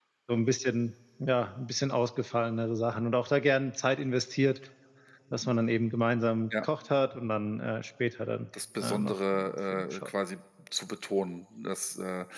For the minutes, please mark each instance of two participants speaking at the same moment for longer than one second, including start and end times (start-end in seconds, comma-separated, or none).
8.8-10.1